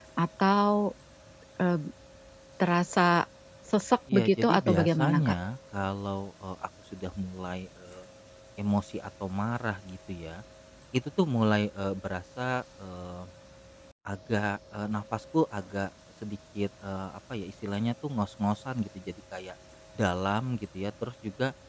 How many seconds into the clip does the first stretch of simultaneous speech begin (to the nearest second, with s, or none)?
4 s